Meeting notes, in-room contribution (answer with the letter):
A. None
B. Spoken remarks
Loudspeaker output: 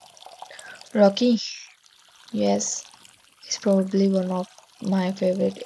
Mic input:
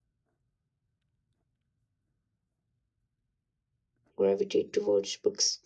B